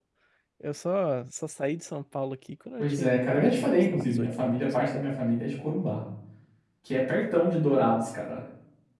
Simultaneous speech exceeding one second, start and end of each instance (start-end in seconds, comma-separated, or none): 2.8-4.8